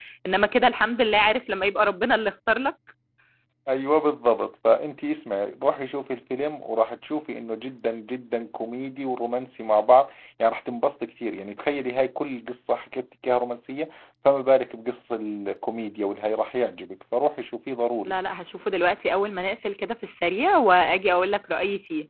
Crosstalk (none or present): none